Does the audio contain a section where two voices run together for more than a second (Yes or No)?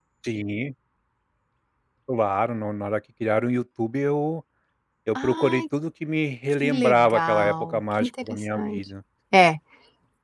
Yes